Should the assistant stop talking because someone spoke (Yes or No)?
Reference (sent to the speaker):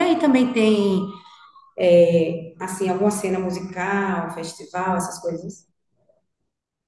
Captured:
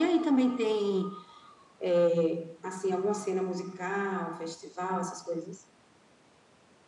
No